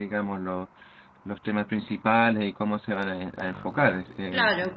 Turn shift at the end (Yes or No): Yes